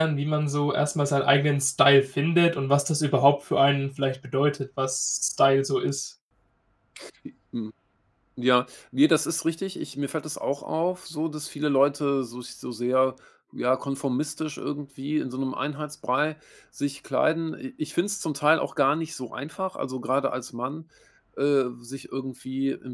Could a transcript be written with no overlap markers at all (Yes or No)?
Yes